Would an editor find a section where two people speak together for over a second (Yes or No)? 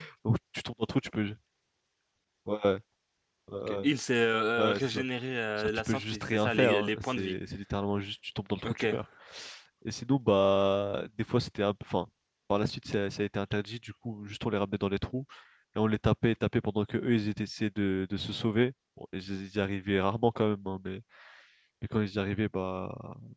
Yes